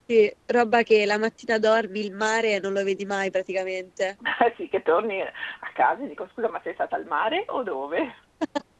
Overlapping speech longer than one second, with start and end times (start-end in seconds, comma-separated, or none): none